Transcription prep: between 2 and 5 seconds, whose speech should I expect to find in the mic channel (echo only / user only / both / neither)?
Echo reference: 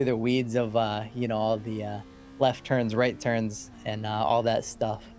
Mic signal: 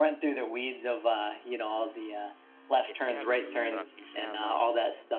both